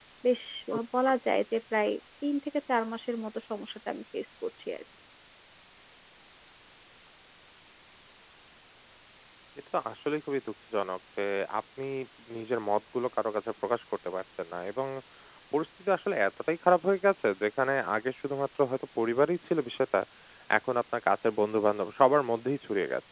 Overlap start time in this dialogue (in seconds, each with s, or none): none